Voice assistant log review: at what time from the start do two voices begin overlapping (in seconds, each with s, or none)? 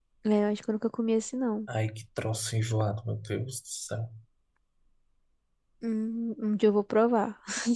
none